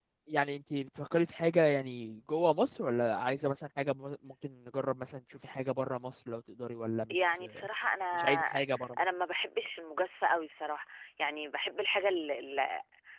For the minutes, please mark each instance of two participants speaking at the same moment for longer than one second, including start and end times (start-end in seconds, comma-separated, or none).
none